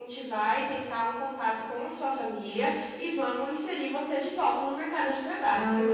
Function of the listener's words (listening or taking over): taking over